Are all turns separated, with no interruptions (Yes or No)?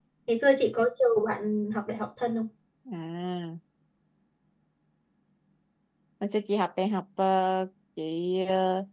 Yes